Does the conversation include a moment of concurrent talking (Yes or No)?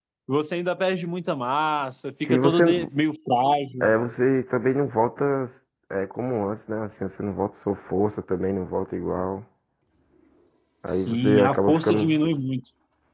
Yes